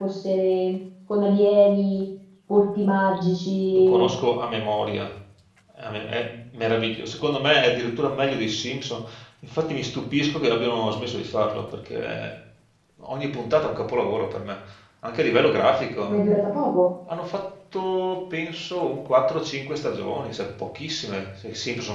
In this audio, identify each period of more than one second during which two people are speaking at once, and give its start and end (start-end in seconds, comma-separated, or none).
none